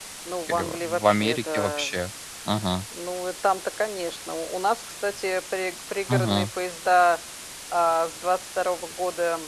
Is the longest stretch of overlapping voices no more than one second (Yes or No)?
No